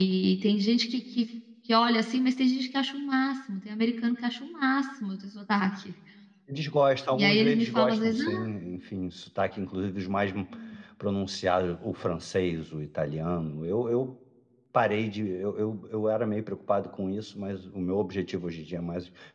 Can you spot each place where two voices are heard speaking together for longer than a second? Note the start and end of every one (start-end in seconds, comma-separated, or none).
7.1-8.3